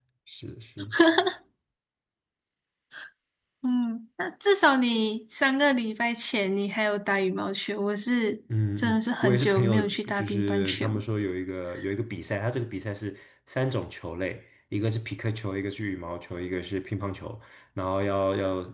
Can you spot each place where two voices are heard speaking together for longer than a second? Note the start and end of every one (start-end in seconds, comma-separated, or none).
8.8-11.0